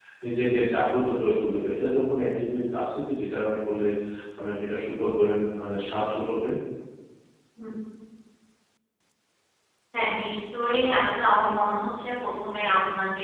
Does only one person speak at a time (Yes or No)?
Yes